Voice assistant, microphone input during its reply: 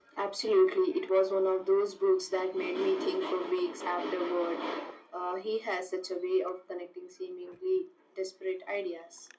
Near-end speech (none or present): none